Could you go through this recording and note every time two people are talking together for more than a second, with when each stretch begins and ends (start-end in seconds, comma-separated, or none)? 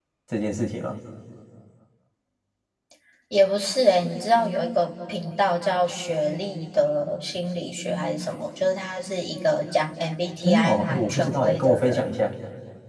10.4-12.2